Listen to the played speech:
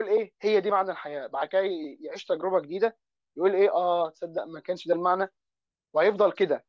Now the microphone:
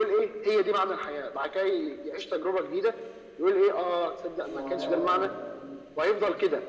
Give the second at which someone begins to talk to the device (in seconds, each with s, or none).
4.4 s